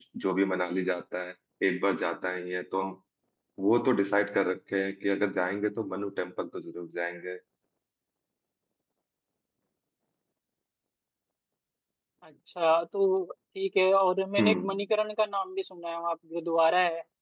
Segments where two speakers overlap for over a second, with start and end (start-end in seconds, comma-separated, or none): none